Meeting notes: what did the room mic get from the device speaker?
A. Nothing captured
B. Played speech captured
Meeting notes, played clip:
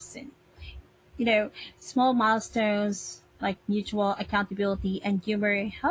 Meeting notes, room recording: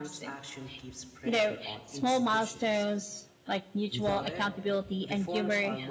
B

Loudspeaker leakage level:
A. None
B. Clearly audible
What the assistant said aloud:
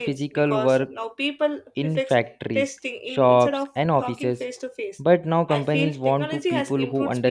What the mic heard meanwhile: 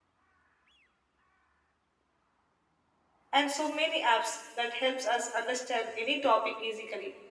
A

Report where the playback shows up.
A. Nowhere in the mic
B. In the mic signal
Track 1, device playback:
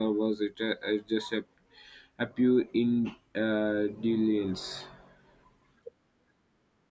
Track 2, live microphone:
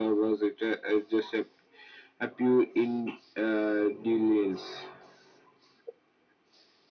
B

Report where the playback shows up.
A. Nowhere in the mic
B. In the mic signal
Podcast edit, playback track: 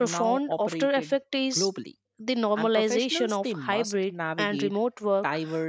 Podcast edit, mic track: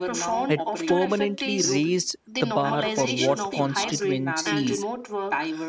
B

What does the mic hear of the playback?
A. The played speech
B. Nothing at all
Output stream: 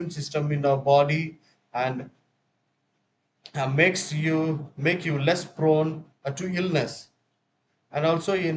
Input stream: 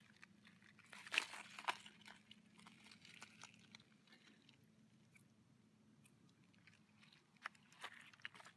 B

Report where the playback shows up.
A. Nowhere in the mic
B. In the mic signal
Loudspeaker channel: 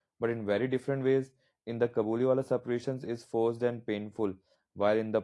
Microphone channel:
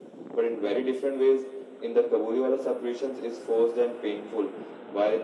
B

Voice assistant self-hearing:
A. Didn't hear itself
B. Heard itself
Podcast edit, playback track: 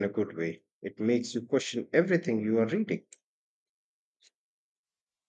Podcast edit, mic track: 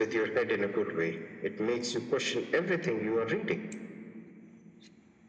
B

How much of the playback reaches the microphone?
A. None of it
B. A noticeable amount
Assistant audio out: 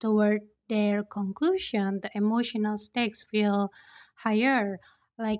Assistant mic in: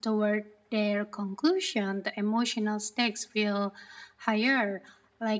B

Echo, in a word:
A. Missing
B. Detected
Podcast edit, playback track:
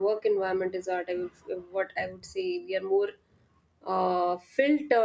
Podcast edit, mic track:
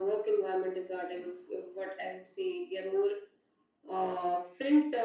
B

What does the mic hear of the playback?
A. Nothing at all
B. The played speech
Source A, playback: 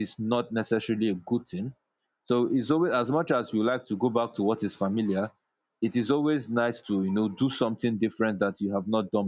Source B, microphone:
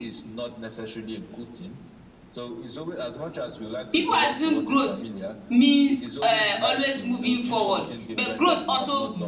B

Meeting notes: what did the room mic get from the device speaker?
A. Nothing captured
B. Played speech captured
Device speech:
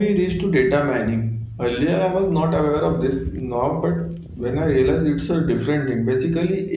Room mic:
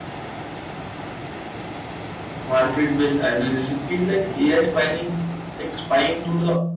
A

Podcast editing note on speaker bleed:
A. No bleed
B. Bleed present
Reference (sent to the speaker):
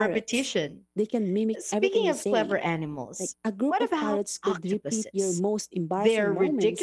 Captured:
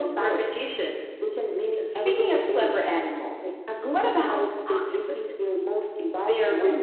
B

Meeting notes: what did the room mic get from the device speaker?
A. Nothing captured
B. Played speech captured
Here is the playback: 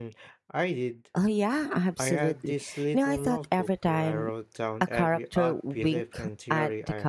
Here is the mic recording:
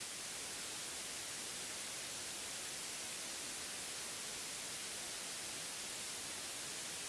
A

